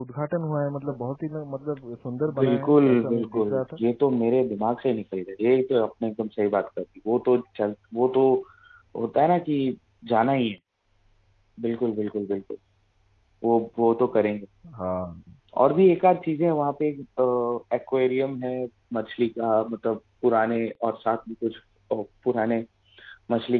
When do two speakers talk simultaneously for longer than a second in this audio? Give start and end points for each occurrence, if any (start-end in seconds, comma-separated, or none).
2.4-3.8